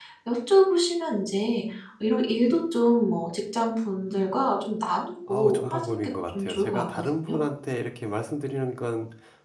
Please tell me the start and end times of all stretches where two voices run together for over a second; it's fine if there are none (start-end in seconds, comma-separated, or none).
5.3-7.4